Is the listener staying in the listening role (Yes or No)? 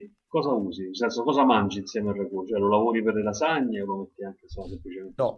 No